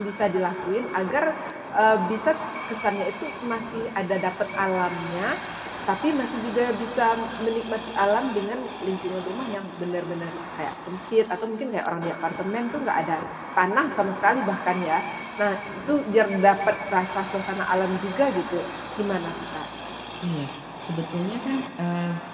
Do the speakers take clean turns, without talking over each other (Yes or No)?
Yes